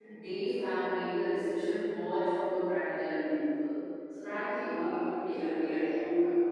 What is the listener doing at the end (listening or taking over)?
taking over